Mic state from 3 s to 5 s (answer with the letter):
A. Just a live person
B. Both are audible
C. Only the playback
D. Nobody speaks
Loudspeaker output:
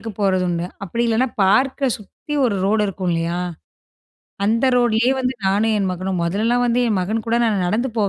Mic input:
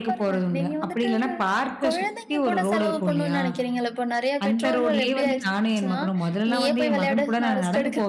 B